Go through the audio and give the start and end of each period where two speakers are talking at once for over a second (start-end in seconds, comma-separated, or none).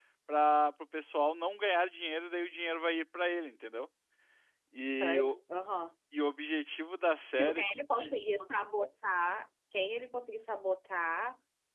none